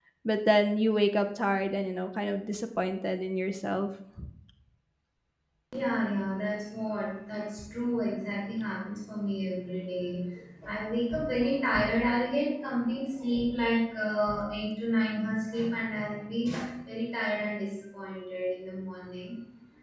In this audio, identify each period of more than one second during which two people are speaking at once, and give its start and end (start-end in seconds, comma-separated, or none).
none